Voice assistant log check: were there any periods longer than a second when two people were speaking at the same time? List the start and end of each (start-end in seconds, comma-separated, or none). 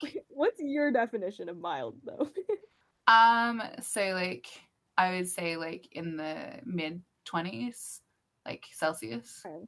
none